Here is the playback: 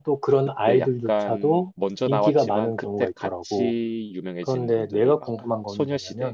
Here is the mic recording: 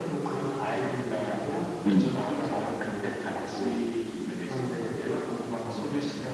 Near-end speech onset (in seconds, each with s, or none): 1.9 s